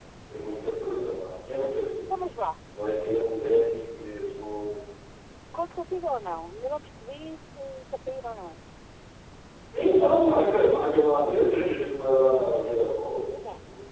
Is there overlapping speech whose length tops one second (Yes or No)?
No